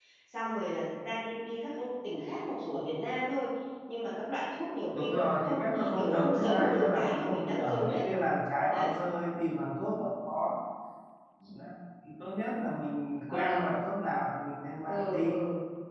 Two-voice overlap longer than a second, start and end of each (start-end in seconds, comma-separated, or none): 4.9-8.1